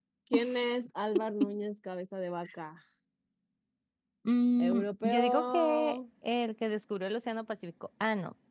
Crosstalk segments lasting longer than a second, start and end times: 4.6-6.0

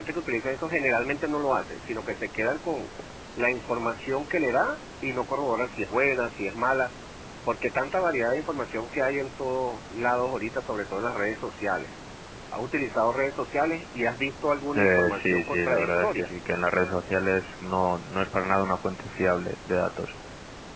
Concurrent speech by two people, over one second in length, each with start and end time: 14.8-16.3

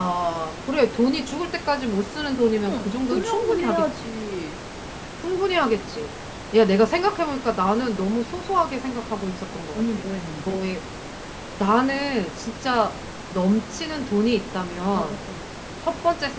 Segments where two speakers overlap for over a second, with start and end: 2.6-4.2

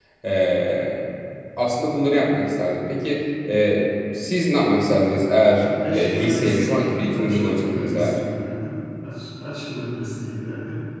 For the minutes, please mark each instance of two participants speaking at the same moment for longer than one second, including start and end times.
5.6-8.2

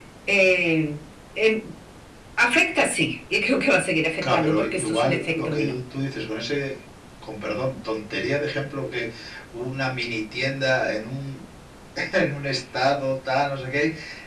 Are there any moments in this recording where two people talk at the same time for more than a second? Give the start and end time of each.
4.2-5.8

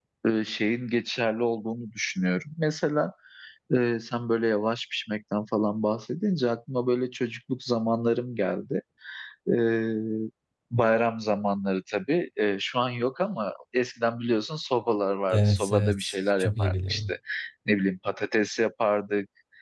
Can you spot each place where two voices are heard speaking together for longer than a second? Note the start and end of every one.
15.3-17.1

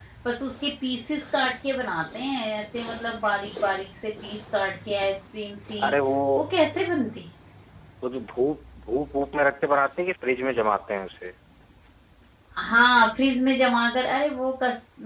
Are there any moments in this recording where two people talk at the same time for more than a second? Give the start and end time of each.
none

